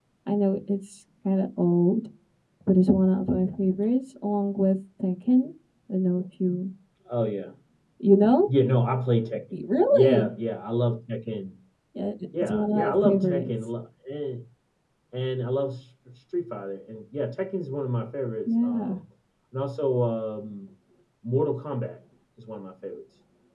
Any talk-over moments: Yes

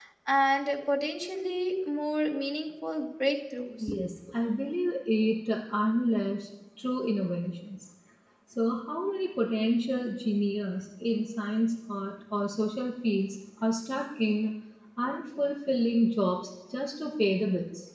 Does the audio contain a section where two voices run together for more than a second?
No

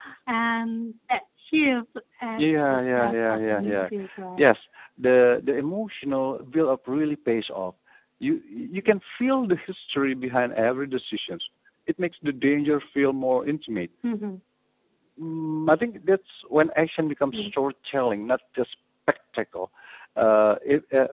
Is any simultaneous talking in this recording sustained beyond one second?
Yes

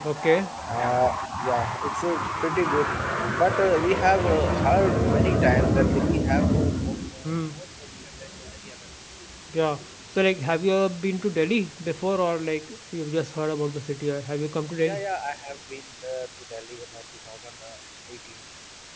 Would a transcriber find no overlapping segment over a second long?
Yes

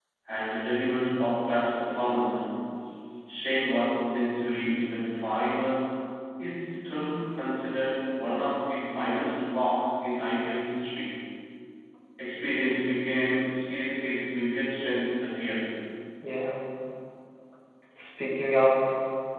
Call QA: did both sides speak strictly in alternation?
Yes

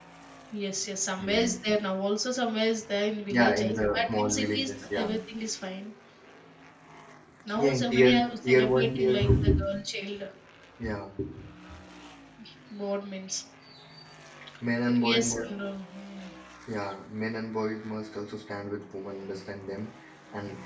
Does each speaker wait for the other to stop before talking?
No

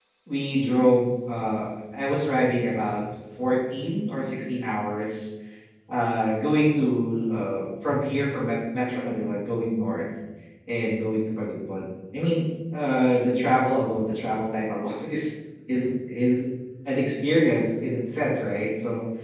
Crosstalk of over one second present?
No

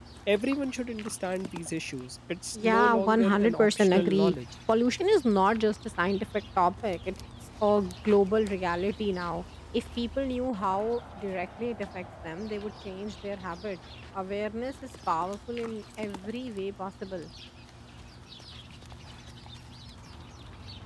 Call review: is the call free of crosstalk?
No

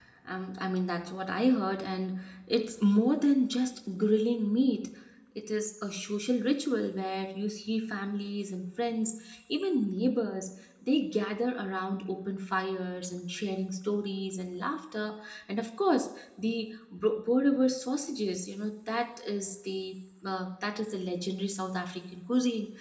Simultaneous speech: No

